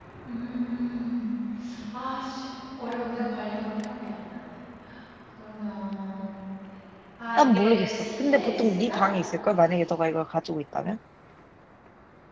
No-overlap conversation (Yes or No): No